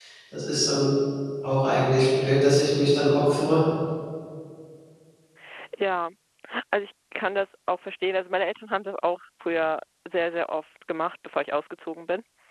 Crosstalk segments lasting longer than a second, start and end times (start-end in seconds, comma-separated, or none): none